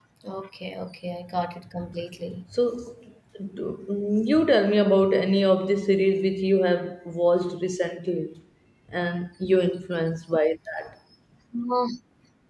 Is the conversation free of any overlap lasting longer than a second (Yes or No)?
Yes